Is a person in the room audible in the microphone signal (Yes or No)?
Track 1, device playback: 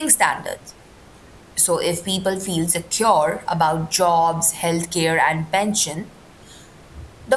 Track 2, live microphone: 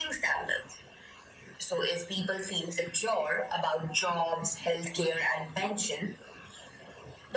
No